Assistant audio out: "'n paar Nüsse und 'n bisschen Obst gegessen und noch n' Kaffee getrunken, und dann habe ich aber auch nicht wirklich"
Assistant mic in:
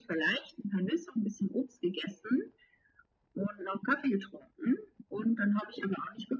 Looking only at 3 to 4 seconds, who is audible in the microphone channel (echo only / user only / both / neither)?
echo only